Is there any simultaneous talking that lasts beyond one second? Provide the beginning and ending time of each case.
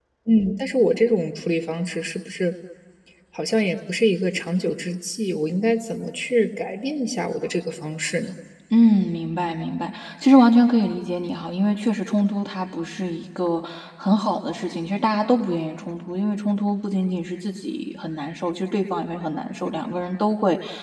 none

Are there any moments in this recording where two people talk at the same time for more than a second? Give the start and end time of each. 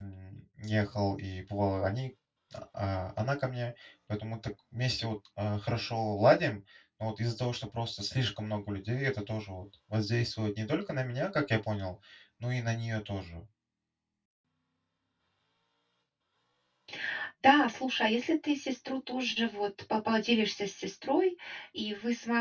none

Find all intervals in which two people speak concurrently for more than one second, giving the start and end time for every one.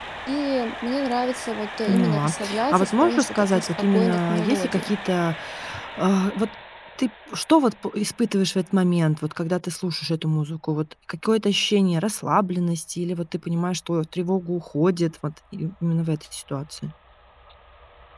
1.8-4.9

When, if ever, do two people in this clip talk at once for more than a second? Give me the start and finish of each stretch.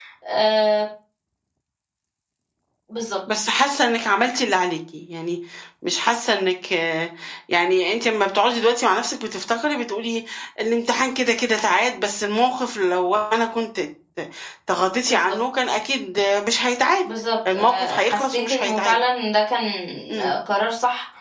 17.5-18.9

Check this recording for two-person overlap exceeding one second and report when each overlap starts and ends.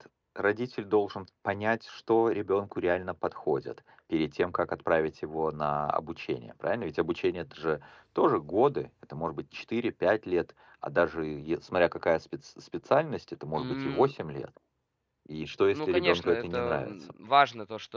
15.7-17.1

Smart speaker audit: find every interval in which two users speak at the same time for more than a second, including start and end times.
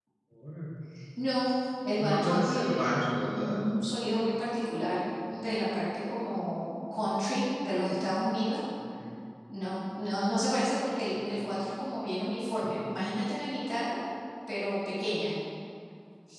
2.1-3.6

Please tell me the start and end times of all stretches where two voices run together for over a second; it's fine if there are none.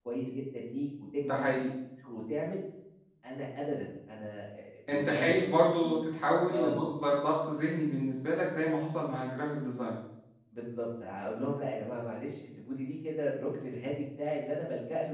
none

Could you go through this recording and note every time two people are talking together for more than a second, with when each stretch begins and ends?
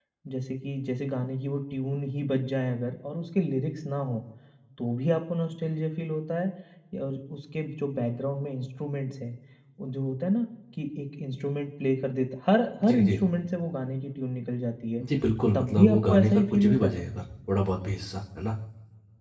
15.5-17.0

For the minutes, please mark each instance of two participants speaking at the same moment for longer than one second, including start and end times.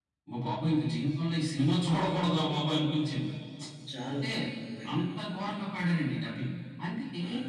none

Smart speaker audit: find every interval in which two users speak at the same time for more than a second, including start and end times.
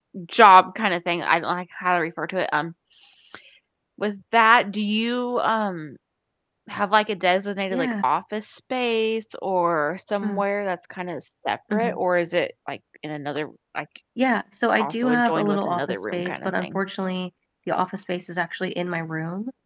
14.8-16.8

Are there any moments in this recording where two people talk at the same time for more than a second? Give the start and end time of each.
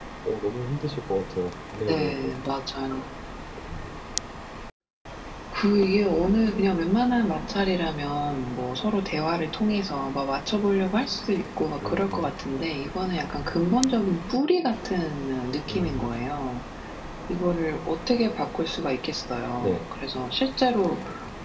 none

